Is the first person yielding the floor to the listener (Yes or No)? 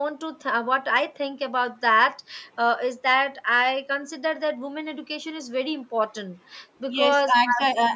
Yes